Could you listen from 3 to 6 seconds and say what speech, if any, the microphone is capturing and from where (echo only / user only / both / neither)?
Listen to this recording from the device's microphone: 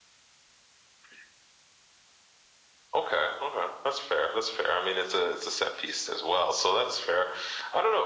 echo only